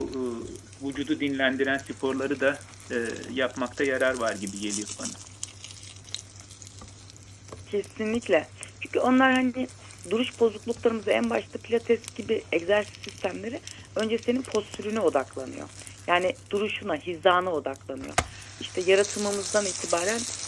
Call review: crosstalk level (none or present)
none